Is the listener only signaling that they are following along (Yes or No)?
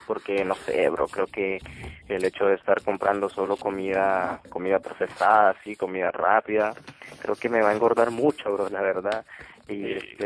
Yes